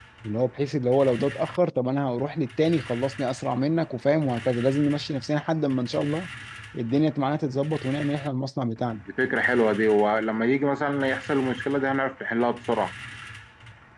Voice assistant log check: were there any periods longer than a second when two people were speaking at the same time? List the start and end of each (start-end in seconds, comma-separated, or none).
none